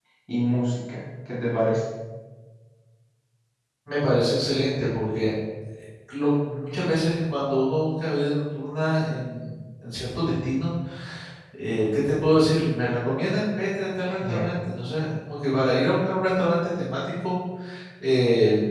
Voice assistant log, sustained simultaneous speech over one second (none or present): none